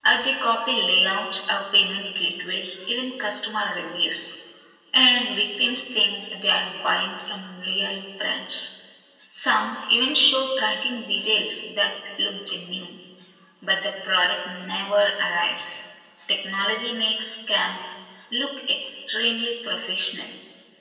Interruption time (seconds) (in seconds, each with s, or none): none